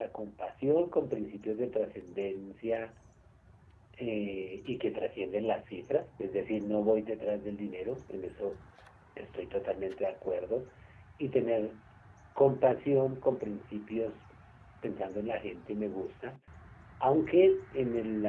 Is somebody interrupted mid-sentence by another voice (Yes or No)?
No